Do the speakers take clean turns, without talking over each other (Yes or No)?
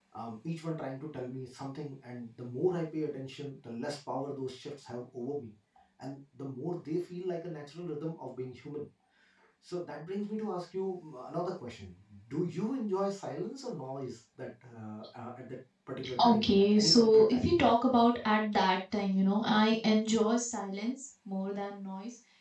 No